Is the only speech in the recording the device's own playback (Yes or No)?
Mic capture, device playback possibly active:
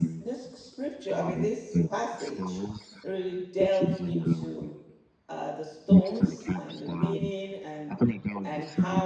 No